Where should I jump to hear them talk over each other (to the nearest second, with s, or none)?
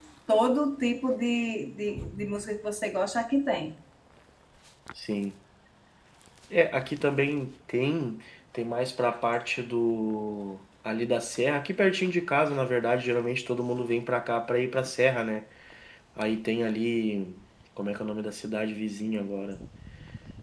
none